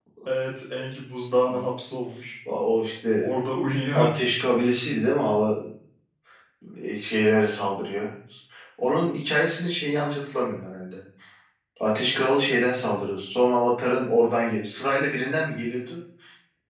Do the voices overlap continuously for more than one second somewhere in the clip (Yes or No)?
No